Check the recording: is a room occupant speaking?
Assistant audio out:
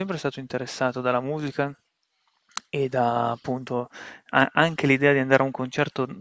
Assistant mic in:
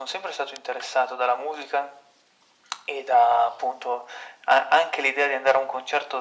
No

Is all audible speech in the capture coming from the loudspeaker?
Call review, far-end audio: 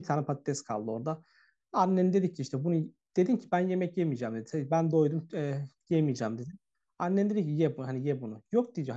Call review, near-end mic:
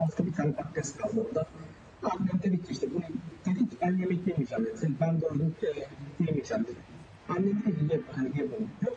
Yes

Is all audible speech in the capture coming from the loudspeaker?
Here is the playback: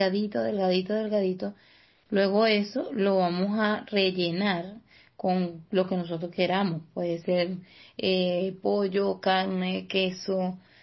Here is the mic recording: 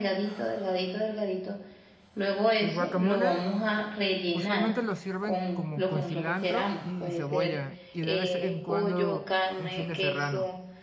No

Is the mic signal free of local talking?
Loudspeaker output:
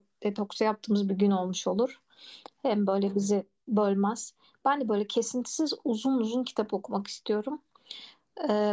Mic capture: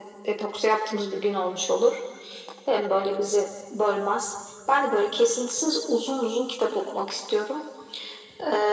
Yes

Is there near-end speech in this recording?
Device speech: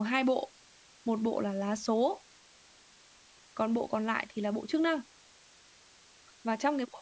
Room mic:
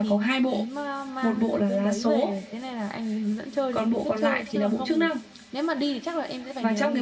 Yes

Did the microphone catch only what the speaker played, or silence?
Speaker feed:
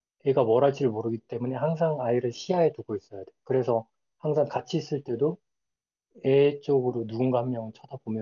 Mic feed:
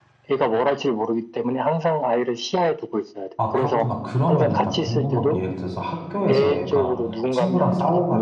No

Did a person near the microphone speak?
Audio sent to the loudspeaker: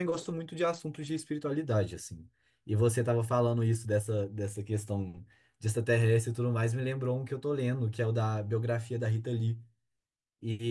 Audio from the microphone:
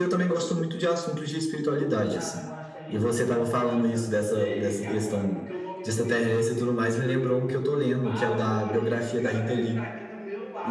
Yes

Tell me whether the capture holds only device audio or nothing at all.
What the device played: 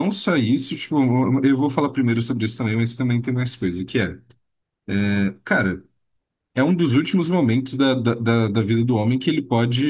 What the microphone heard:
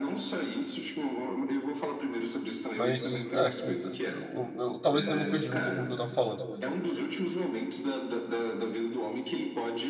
No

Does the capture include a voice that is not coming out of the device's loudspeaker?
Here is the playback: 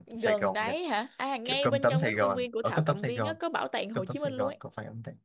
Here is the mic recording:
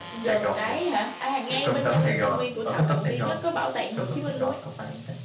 No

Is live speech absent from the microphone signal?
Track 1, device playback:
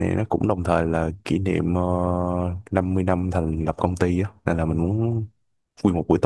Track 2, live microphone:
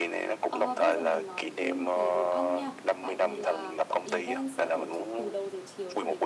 No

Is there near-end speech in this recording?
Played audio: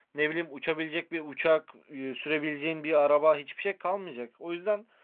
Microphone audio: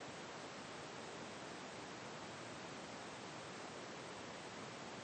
No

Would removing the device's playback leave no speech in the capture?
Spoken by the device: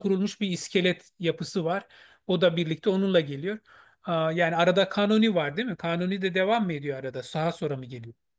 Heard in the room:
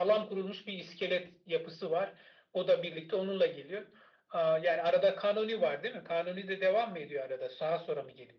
Yes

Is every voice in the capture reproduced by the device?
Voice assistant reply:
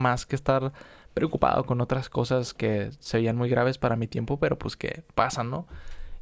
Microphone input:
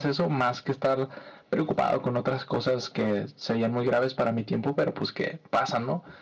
Yes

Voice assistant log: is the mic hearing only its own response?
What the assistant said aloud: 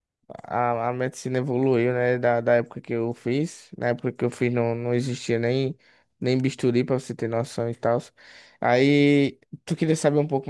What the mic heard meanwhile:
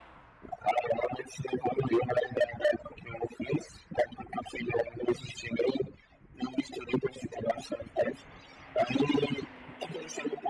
Yes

